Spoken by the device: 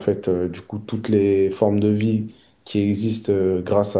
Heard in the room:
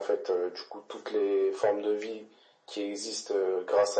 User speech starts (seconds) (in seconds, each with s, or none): none